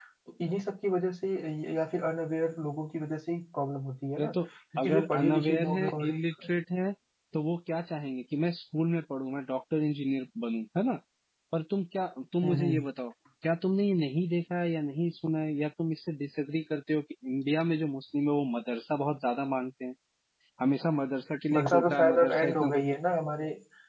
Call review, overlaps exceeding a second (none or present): present